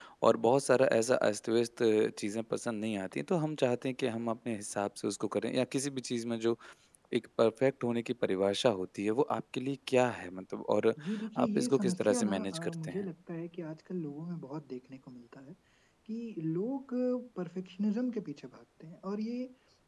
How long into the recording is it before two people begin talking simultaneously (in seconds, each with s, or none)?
11.4 s